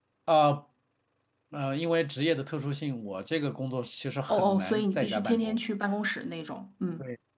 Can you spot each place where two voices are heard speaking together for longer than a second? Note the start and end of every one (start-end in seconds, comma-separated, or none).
4.3-5.6